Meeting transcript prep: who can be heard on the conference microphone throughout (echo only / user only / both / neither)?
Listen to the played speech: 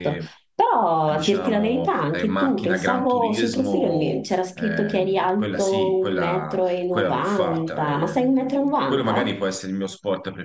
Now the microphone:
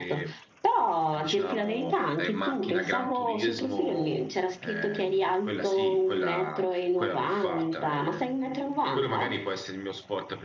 echo only